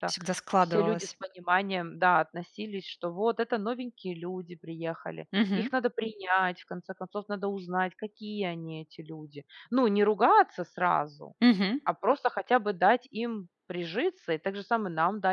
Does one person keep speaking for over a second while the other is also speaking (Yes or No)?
No